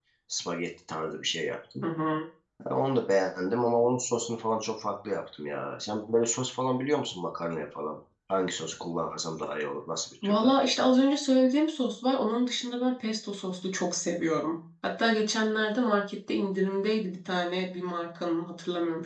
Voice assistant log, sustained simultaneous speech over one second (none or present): none